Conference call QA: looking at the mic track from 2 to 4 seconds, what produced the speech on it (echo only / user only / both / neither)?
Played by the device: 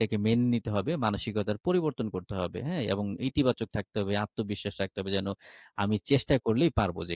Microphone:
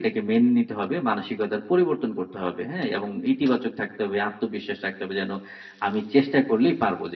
echo only